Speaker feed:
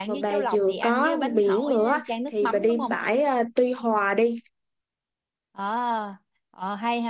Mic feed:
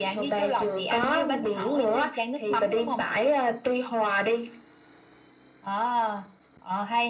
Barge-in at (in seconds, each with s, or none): none